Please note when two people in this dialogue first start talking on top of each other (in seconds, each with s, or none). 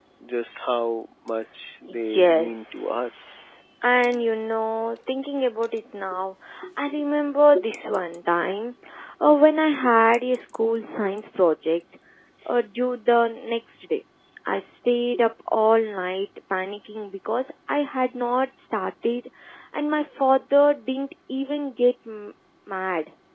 1.9 s